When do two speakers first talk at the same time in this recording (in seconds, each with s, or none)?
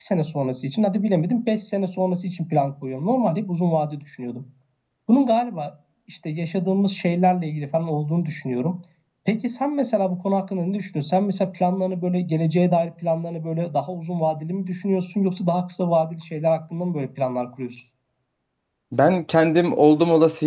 none